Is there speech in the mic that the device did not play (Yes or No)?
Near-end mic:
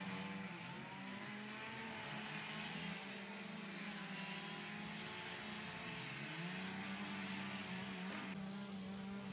No